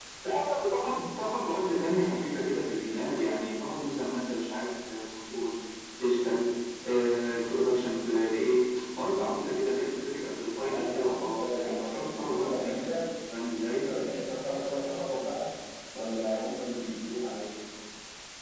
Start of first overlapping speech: 10.6 s

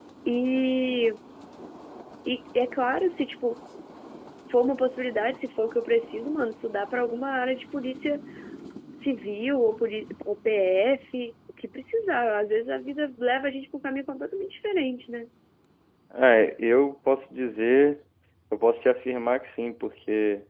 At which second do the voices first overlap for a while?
none

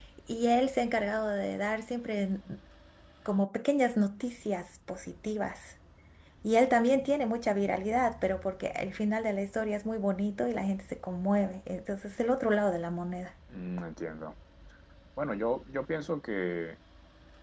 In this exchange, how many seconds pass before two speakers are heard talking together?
none

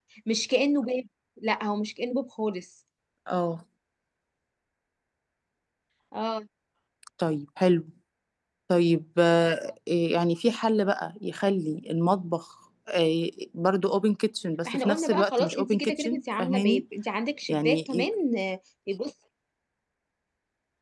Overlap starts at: 14.7 s

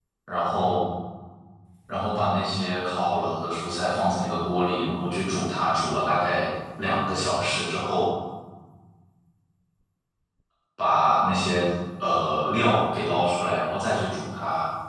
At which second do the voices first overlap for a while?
none

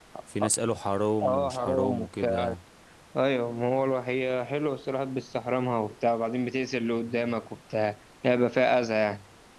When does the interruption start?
1.2 s

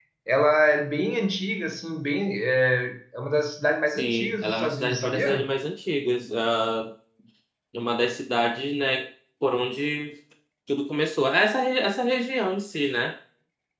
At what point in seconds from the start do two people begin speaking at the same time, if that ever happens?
3.9 s

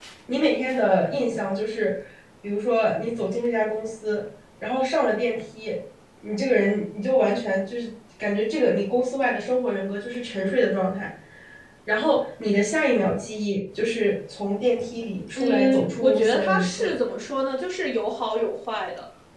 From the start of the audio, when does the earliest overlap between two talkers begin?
15.4 s

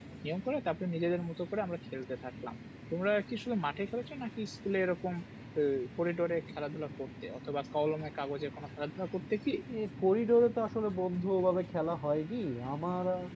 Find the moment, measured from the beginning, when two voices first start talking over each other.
none

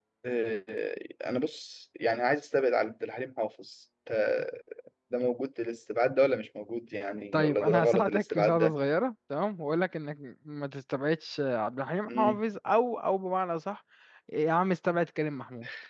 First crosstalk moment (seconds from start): 7.3 s

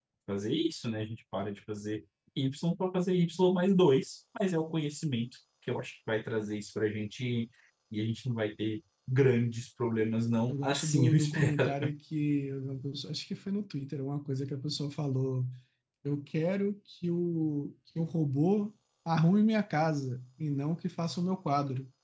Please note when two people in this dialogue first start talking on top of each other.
10.5 s

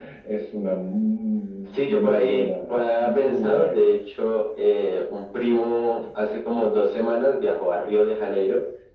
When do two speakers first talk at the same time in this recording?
1.6 s

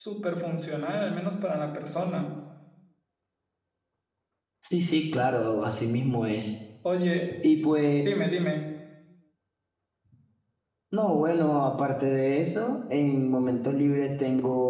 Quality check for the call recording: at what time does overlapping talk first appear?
none

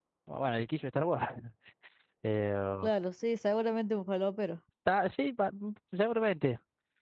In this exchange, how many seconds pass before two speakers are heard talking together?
none

